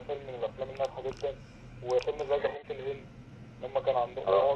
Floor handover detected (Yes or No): Yes